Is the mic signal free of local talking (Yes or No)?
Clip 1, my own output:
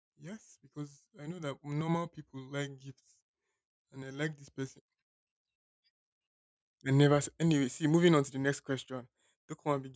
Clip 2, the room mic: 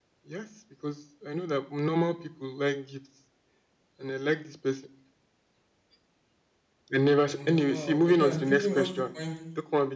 No